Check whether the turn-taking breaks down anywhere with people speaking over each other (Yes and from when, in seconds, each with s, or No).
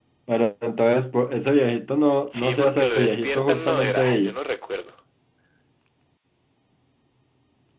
Yes, from 2.2 s